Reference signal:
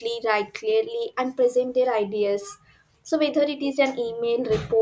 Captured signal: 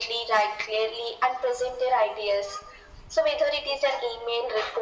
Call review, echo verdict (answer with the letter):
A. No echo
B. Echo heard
B